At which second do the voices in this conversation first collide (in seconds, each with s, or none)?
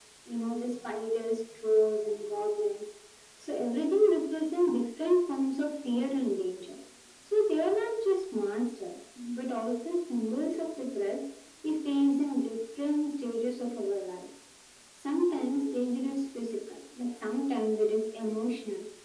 none